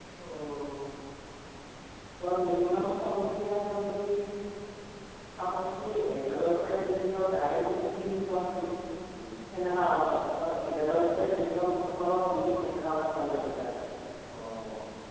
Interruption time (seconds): none

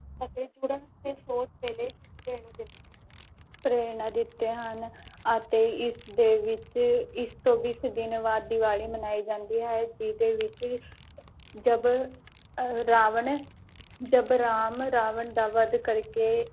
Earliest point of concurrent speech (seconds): none

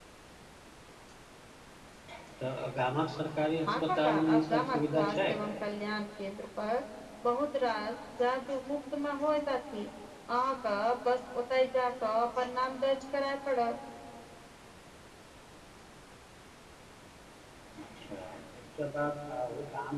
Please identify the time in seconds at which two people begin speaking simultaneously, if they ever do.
4 s

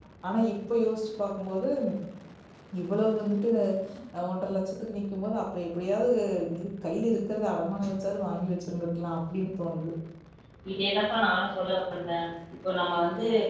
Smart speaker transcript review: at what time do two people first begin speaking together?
none

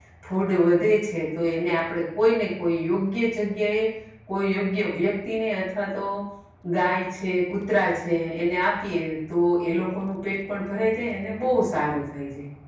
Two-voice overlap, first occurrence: none

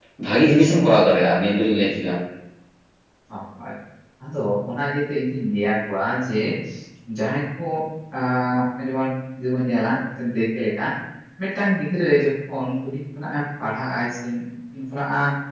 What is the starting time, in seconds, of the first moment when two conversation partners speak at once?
none

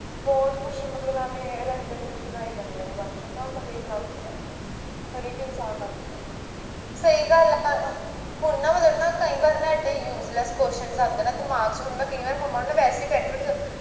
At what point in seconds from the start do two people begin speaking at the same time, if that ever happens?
none

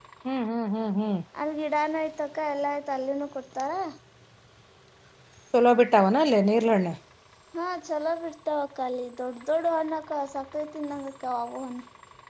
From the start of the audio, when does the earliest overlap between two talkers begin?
none

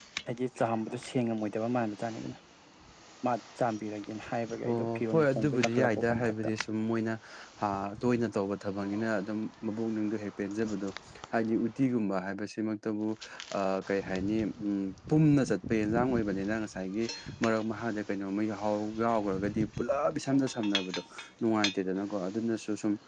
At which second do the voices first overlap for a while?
5 s

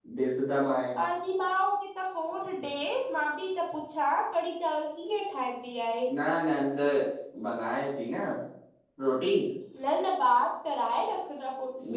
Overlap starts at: none

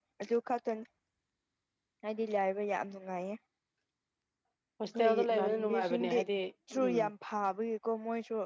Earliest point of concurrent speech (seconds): 5 s

